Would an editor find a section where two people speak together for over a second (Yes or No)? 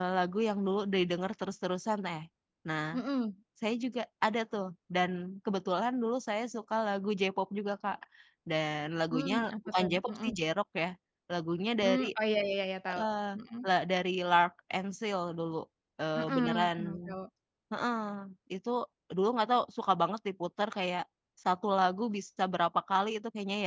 Yes